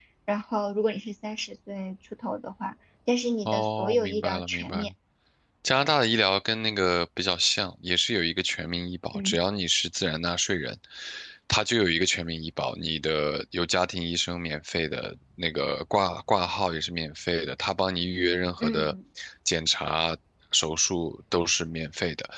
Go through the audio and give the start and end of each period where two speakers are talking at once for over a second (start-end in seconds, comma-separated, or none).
3.5-4.9